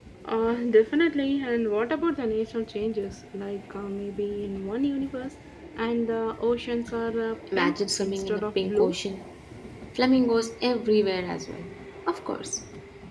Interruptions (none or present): present